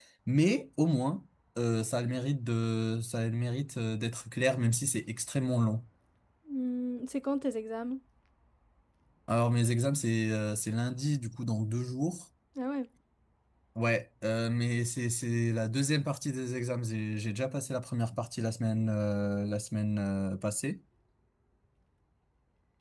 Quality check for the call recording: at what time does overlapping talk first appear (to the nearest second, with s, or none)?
none